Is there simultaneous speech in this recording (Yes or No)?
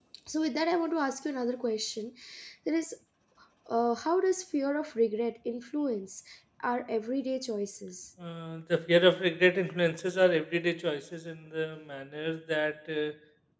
No